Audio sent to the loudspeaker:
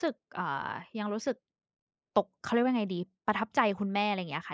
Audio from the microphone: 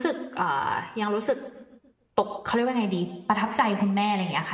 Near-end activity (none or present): none